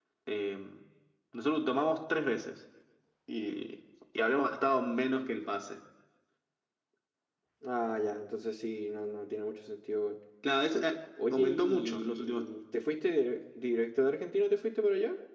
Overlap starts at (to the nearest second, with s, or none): 11 s